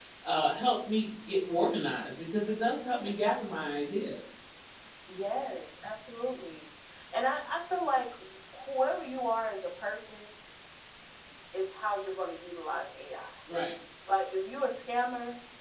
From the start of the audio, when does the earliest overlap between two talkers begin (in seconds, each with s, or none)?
none